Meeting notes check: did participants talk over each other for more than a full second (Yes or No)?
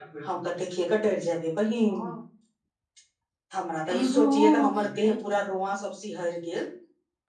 Yes